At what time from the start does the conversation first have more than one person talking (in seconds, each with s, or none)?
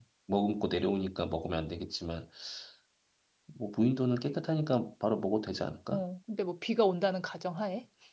none